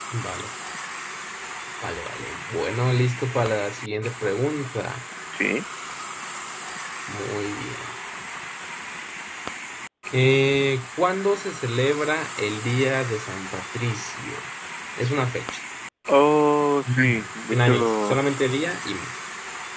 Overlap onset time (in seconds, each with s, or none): 16.9 s